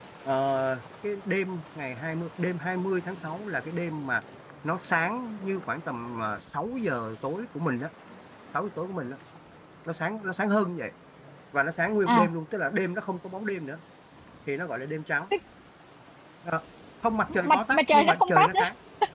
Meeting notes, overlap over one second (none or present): present